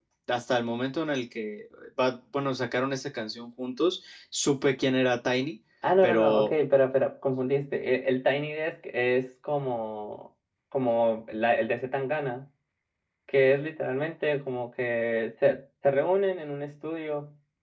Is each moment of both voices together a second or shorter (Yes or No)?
Yes